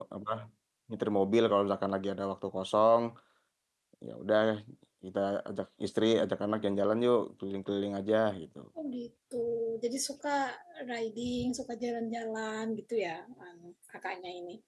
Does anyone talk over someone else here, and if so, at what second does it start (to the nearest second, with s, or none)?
none